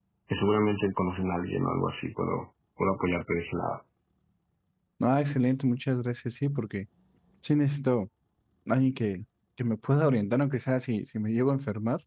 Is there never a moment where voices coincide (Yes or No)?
Yes